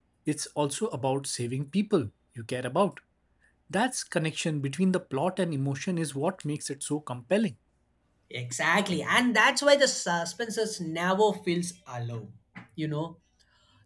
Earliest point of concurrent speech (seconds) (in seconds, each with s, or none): none